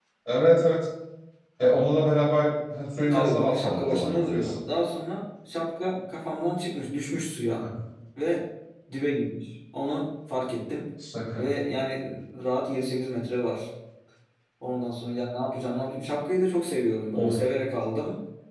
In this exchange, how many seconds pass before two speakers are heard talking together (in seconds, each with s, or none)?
3.0 s